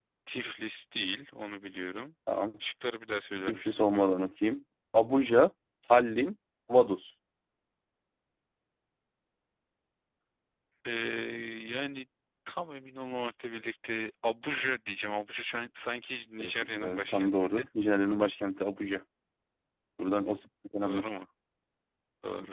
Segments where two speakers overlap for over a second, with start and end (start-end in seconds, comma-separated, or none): 16.4-17.7